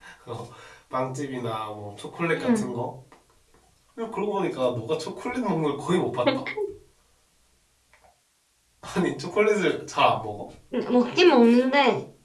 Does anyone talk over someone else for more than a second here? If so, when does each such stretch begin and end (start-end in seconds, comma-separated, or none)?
none